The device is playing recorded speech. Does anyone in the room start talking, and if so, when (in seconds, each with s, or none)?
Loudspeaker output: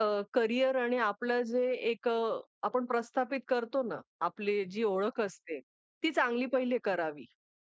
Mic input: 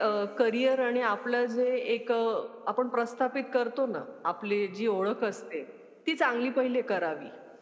none